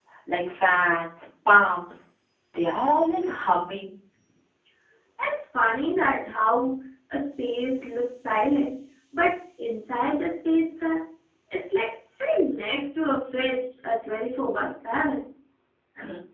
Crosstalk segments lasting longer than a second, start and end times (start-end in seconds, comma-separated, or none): none